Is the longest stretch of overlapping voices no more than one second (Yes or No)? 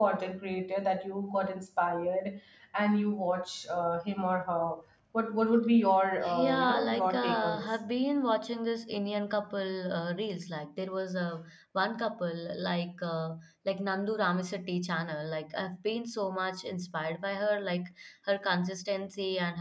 No